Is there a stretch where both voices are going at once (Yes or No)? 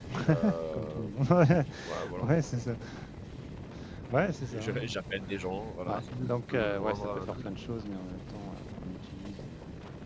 Yes